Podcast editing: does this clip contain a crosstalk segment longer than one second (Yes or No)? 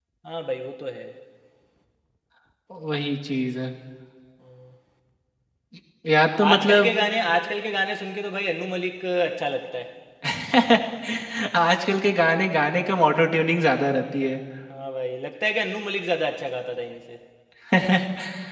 No